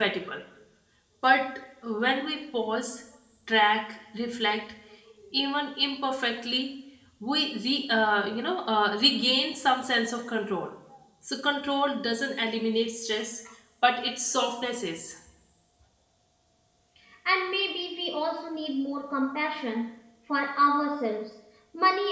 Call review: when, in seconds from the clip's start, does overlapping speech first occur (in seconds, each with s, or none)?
none